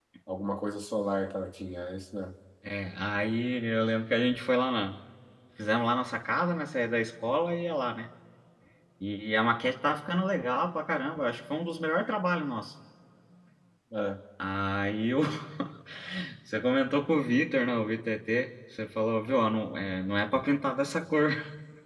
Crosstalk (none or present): none